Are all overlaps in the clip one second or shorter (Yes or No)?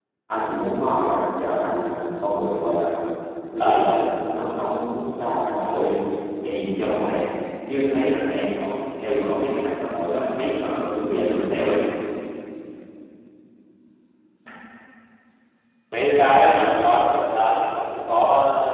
Yes